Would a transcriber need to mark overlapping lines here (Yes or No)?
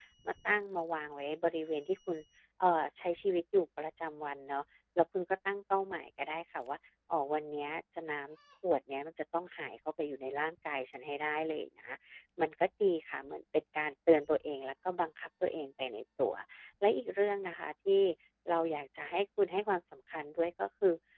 No